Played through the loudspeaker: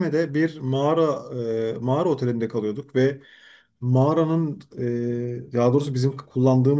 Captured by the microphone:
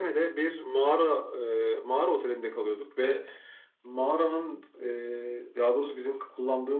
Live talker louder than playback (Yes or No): No